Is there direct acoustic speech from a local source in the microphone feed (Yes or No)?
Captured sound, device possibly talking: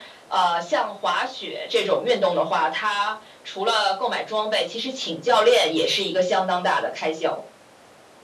No